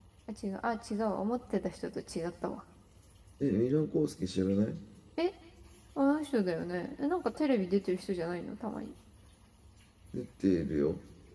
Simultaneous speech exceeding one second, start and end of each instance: none

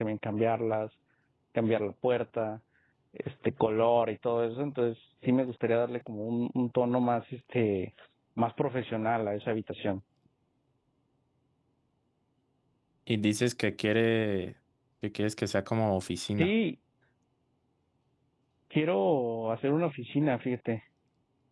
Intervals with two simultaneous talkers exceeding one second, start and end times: none

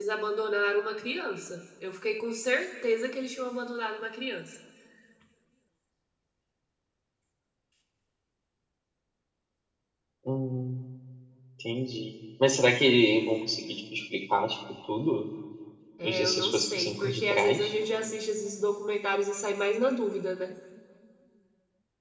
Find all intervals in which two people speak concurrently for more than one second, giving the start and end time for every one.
16.1-17.7

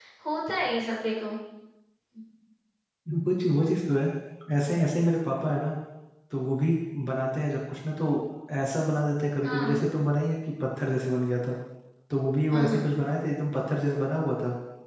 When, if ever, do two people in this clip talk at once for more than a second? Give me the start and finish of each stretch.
none

